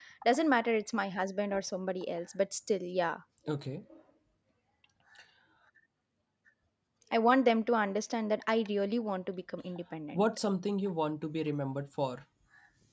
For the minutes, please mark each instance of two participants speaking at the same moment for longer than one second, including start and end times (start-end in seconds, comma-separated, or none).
none